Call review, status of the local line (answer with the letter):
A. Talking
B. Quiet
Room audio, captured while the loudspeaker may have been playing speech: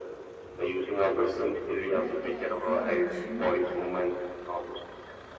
A